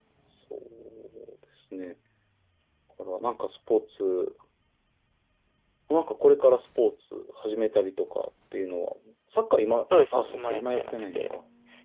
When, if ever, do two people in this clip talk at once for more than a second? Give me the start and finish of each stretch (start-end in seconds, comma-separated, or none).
10.1-11.4